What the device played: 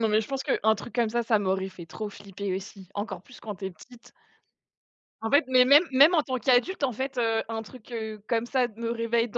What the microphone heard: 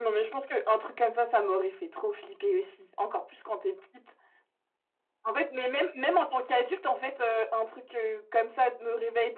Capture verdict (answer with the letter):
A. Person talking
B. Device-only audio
B